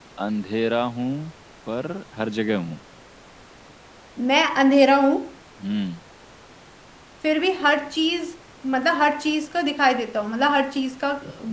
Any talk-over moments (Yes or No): No